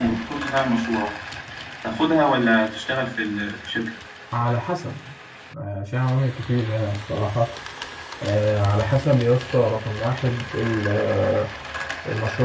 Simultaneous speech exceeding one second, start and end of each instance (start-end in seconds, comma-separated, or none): none